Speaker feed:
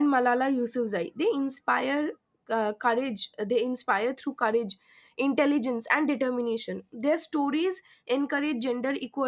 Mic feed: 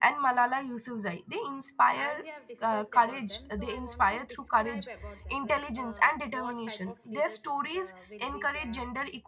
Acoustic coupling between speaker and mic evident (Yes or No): Yes